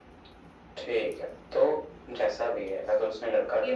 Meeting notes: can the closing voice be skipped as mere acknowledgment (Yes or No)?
No